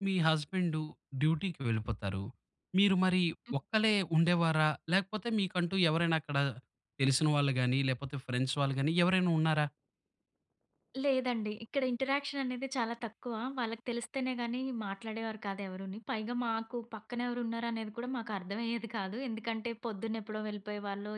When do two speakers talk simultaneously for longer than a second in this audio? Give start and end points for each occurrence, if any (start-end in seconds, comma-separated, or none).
none